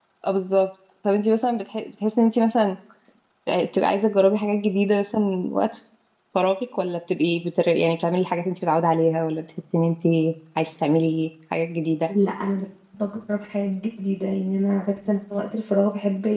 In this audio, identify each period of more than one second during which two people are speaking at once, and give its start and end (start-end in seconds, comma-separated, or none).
none